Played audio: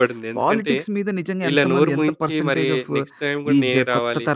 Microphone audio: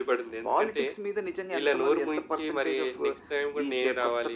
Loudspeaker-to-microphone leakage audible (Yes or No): Yes